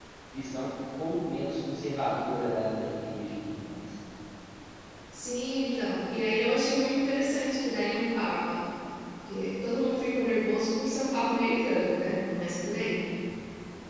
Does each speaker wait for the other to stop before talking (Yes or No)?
Yes